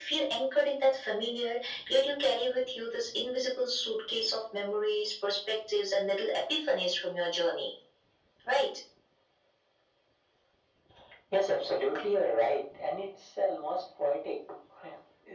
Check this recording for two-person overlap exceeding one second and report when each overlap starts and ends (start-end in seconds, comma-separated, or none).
none